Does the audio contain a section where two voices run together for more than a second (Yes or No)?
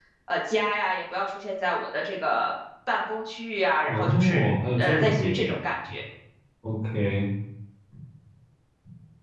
Yes